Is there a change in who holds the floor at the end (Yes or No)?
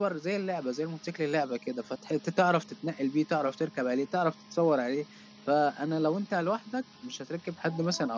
No